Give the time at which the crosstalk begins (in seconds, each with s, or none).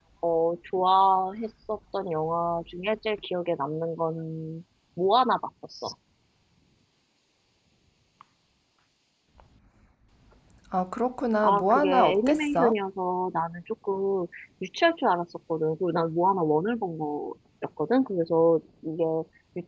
11.4 s